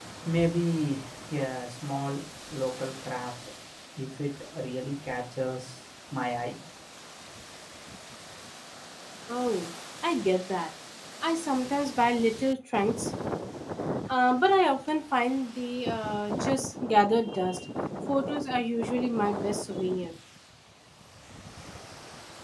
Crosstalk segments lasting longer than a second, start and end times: none

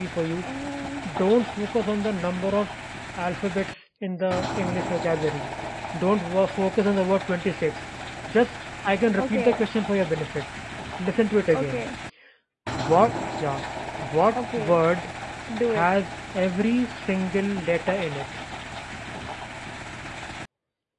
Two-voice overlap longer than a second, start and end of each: none

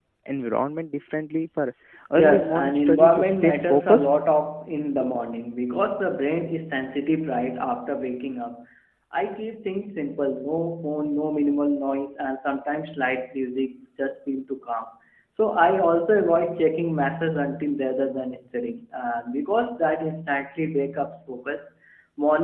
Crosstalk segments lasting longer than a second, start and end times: 2.2-4.0

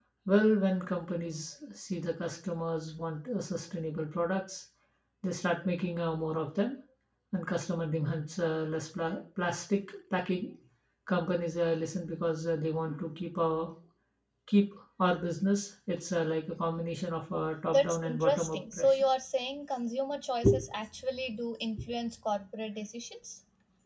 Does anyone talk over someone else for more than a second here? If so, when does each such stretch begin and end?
17.7-19.0

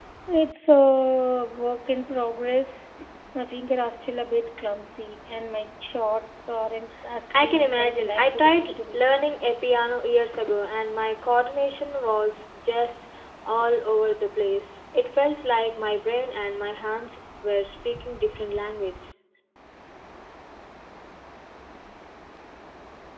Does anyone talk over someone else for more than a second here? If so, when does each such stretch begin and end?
7.4-9.1

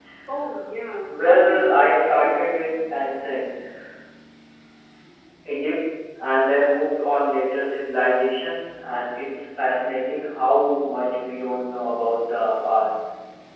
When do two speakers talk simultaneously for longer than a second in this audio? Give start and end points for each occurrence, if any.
1.1-2.3

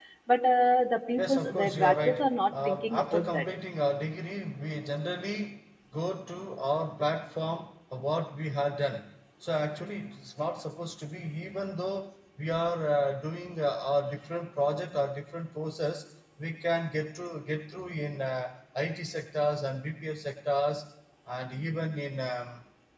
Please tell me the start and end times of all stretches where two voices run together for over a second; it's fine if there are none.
1.2-3.5

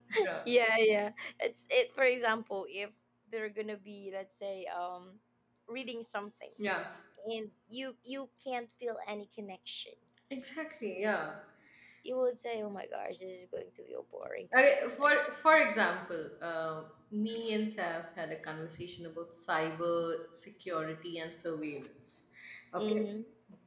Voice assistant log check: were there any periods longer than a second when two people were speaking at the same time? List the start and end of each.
none

